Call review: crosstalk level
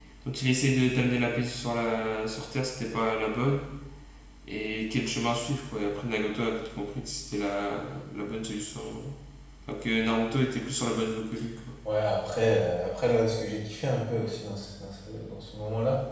none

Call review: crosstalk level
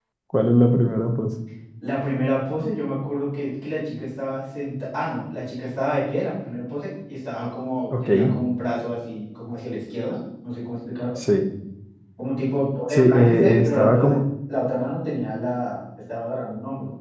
present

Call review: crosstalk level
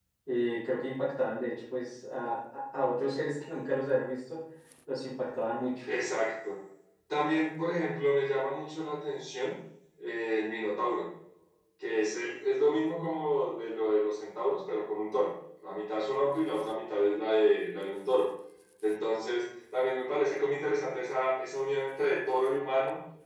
none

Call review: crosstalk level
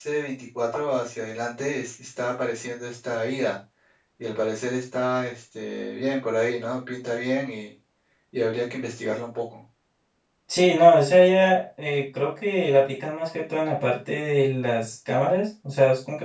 none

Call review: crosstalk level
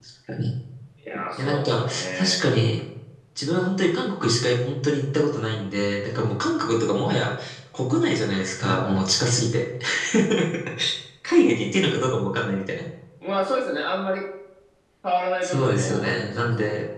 present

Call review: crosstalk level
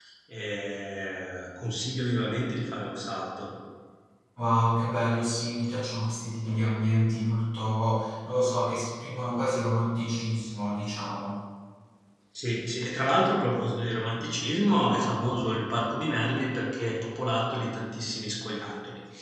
none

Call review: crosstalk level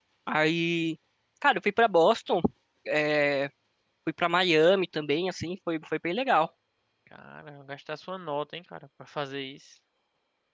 none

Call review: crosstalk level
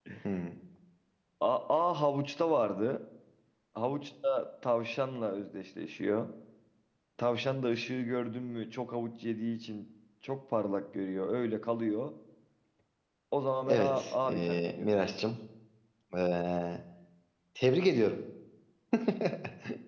present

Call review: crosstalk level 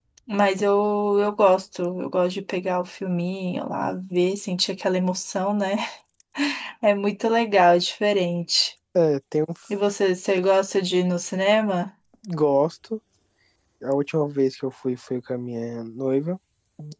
none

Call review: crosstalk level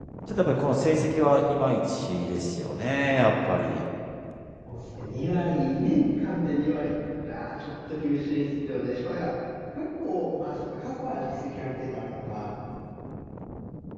none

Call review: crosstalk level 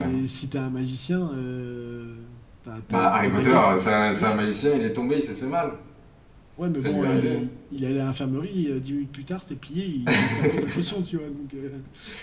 present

